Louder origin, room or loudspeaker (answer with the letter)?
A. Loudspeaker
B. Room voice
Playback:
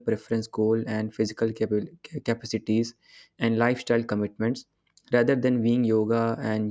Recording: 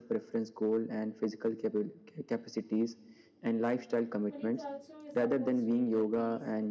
A